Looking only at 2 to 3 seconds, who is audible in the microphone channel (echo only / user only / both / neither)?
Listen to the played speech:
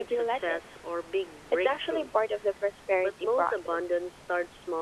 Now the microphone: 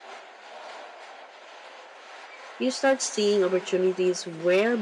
user only